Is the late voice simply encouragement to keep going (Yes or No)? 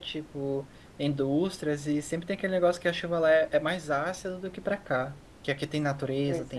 Yes